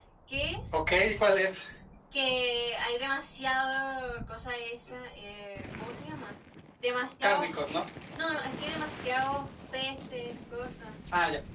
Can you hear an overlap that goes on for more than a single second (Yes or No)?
No